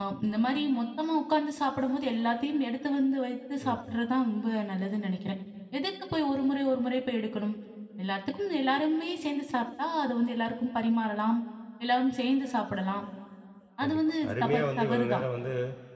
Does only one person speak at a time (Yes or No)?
No